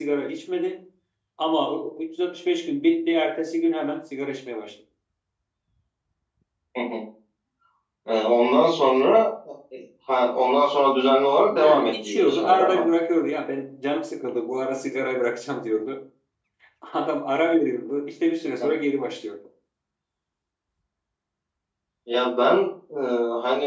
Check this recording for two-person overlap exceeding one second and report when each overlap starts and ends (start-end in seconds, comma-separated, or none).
11.5-12.8